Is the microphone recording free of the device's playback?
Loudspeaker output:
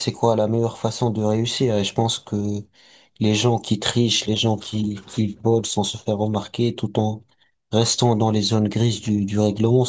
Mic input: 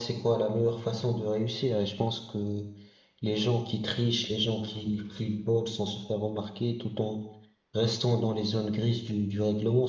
No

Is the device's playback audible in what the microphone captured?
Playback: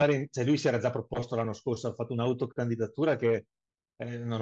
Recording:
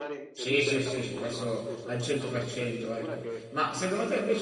Yes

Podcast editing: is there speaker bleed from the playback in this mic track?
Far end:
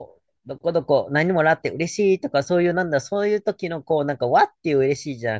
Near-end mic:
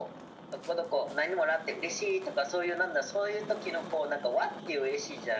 Yes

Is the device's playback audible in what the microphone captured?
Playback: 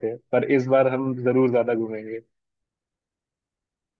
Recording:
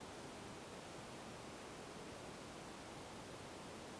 No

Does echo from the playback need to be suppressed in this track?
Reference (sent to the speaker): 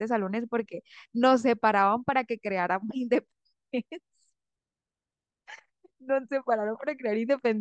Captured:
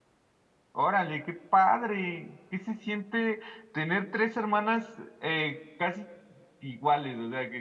No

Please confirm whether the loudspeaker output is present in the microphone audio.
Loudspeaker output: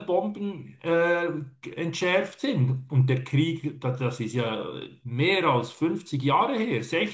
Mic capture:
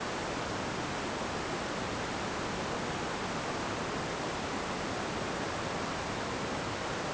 No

